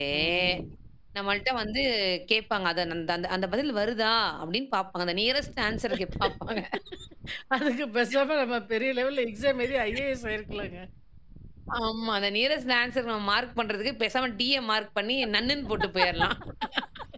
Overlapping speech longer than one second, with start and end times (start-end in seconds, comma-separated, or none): none